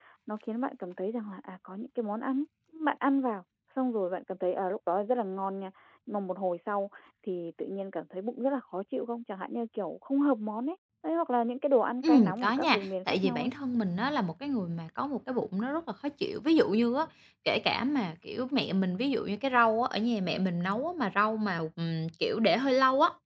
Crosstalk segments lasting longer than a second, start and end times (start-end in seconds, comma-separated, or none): 12.1-13.5